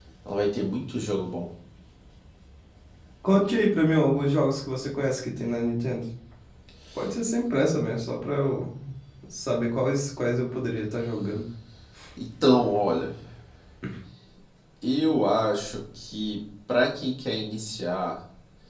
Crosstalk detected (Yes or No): No